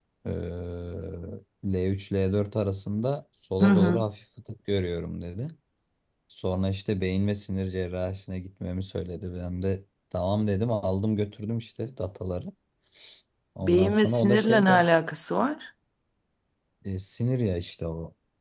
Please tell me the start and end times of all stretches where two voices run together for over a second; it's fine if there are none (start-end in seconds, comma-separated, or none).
13.6-14.9